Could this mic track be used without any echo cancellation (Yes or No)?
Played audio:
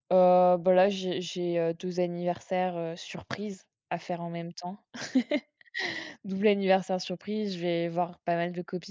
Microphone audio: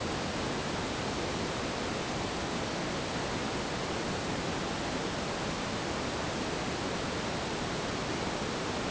Yes